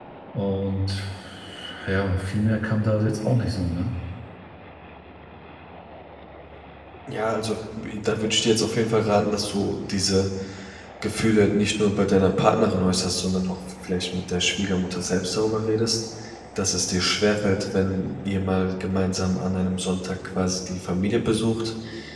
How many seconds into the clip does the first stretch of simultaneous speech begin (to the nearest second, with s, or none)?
none